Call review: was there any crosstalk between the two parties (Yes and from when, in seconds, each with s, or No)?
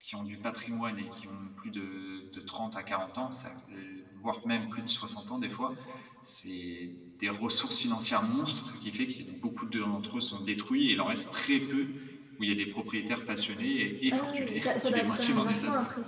Yes, from 14.1 s